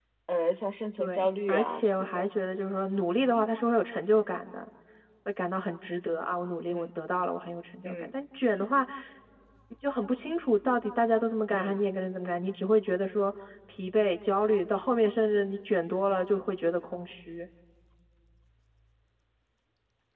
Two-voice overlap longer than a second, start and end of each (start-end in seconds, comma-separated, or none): 1.0-2.3